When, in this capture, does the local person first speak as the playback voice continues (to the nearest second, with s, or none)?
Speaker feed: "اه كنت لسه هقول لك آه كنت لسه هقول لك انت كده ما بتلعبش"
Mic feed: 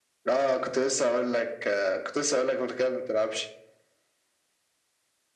none